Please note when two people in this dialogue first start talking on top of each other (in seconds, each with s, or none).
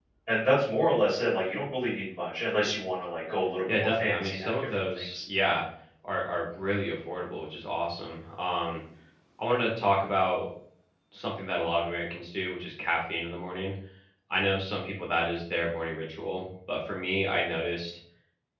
3.7 s